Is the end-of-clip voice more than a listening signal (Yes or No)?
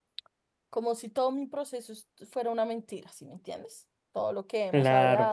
No